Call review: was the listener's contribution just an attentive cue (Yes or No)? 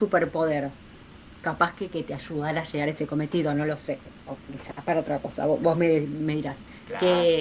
Yes